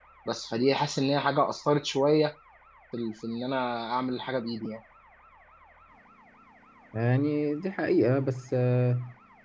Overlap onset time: none

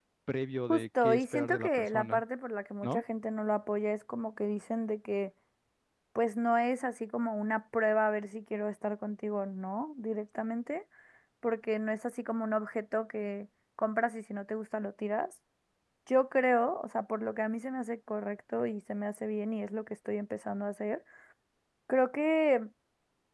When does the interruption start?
1 s

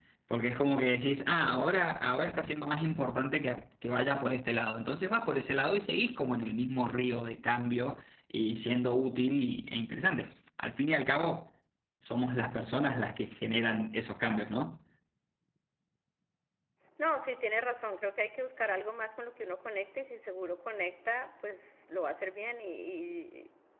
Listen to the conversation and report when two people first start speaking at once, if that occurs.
none

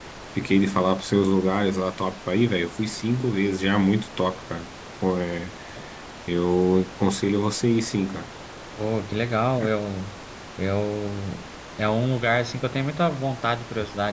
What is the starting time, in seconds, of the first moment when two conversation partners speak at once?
none

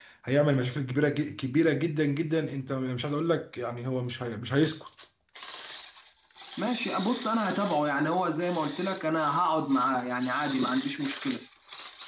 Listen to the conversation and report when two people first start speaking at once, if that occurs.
none

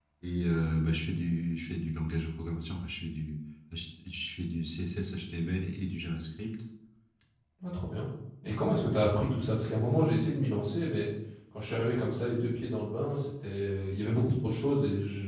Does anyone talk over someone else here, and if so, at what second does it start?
none

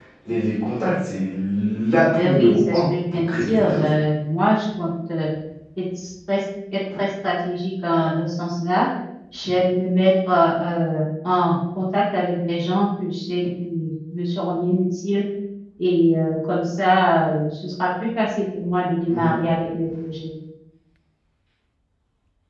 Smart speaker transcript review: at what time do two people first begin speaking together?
2 s

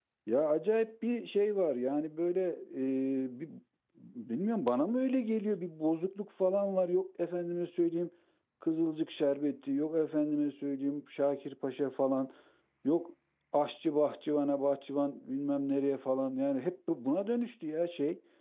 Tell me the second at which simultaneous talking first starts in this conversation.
none

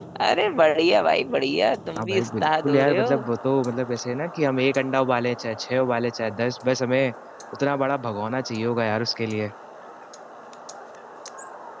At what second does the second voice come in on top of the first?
2 s

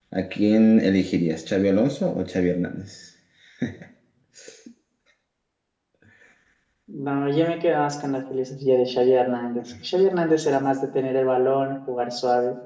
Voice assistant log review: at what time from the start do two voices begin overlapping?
none

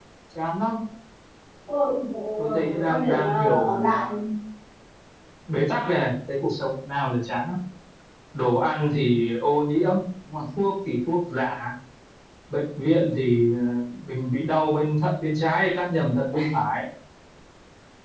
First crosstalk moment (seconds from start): 2 s

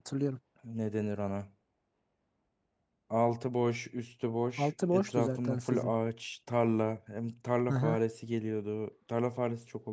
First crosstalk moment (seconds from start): 5 s

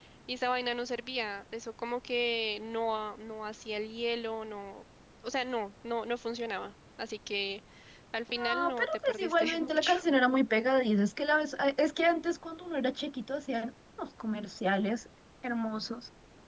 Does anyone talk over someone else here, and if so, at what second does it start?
8 s

